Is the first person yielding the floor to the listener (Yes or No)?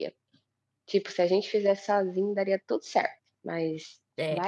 Yes